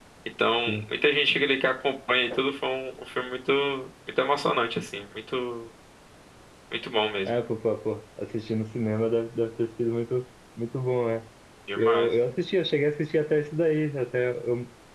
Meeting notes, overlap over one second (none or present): none